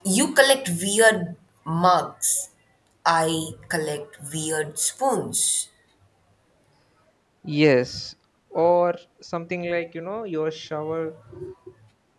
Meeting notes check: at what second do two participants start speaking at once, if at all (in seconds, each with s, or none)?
none